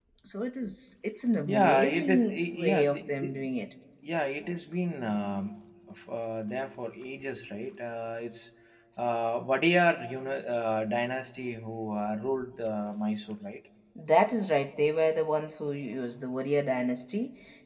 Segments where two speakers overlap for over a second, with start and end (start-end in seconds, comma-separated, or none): 1.5-3.4